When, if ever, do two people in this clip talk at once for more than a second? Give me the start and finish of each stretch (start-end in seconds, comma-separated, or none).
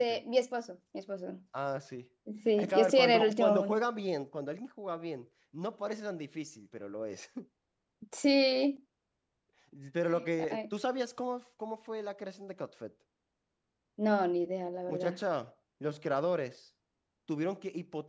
2.6-3.8